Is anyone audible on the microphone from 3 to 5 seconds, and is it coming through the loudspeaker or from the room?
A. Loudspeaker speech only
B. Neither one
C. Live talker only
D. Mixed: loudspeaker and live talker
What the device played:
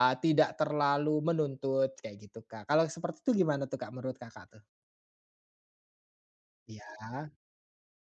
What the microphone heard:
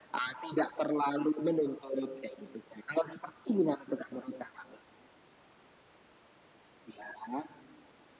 A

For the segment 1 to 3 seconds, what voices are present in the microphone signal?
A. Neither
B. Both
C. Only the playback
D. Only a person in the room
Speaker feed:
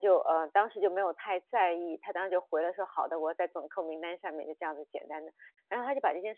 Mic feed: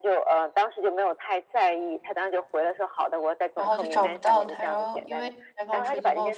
C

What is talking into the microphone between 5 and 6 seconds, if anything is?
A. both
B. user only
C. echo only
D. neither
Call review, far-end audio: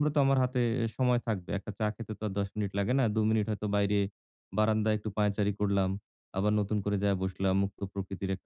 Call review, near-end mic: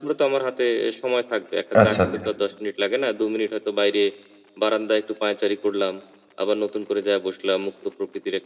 C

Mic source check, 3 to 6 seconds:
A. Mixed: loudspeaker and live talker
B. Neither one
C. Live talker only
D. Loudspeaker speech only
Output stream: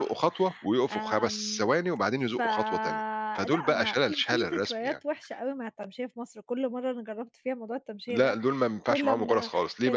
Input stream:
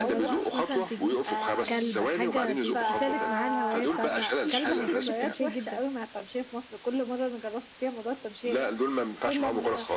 A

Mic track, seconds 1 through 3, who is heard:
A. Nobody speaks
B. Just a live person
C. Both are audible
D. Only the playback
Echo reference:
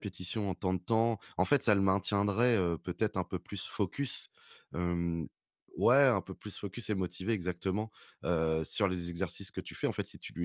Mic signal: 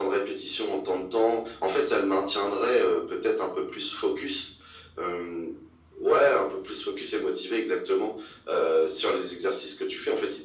D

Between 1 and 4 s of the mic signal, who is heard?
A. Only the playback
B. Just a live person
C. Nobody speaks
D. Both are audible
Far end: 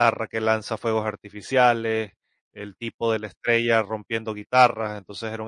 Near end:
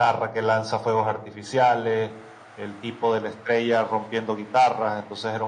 A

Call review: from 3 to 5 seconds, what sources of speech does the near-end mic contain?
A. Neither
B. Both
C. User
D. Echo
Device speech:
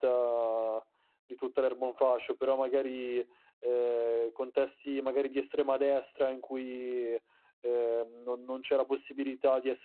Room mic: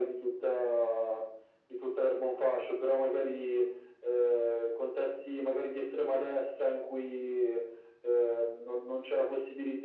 D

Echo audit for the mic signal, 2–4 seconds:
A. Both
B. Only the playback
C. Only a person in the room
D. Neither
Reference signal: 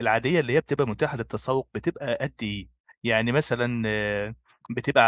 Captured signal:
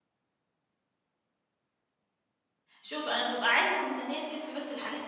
C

